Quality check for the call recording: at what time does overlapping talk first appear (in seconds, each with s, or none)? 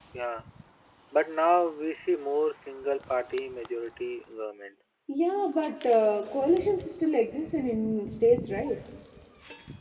none